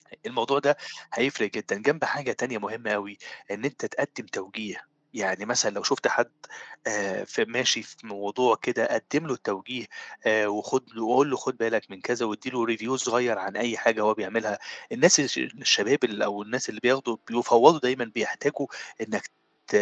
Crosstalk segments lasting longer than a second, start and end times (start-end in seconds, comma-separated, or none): none